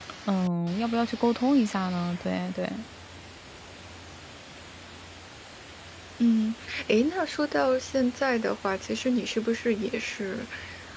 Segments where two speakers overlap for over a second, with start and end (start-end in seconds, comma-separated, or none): none